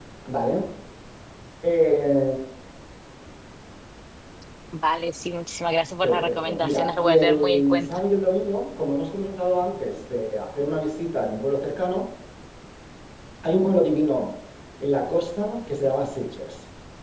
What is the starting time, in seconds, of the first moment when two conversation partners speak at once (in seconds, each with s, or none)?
6.0 s